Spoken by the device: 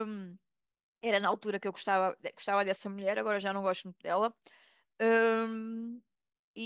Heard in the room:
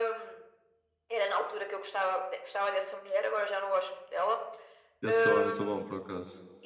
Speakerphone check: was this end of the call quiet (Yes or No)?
No